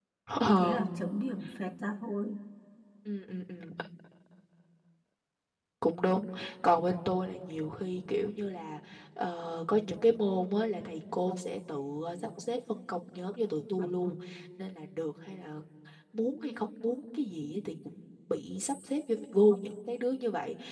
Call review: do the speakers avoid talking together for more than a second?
Yes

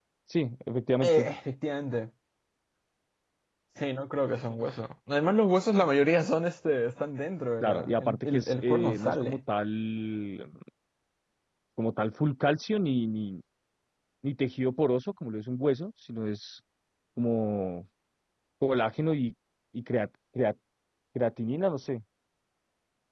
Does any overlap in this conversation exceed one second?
Yes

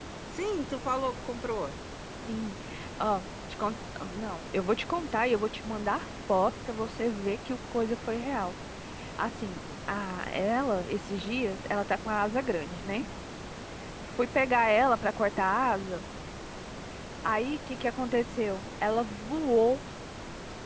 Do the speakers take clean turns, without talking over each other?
Yes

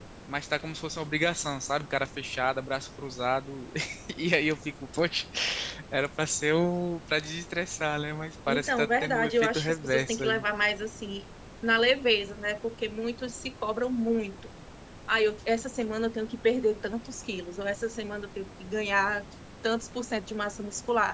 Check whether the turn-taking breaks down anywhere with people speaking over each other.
Yes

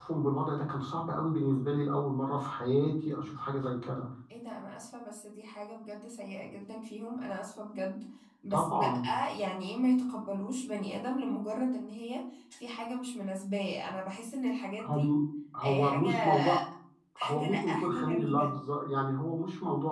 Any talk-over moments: Yes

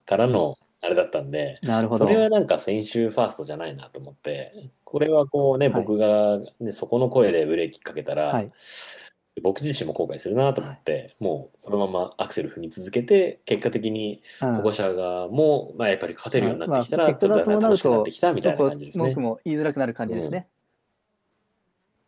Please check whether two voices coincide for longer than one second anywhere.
Yes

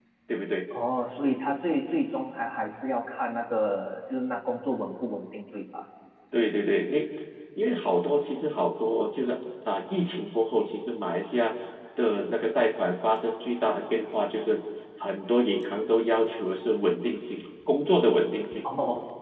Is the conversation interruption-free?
Yes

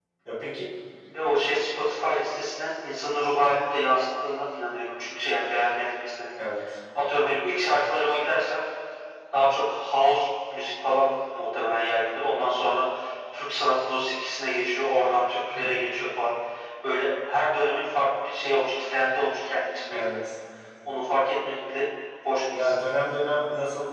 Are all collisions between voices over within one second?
Yes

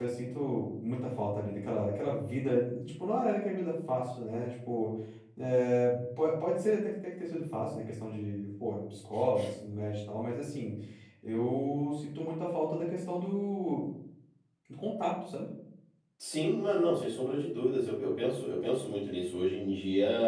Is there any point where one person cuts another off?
No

